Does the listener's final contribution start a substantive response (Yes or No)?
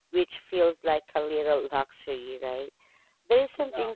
No